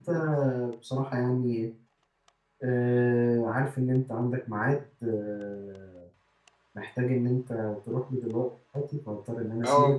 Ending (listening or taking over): taking over